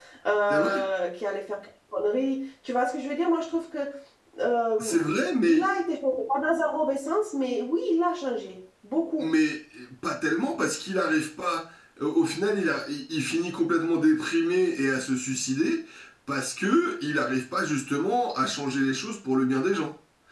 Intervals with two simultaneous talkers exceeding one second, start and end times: none

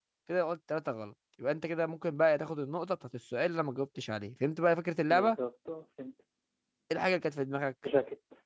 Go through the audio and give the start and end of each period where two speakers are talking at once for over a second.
none

